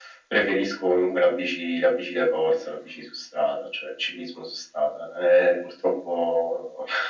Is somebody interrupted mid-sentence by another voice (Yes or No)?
No